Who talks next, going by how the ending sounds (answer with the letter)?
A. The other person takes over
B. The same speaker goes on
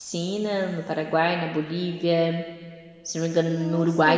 B